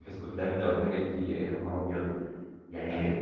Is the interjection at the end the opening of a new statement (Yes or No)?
No